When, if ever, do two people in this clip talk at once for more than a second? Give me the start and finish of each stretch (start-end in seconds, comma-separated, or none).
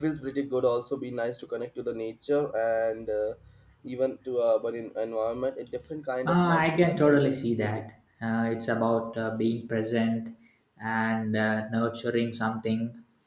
6.3-7.8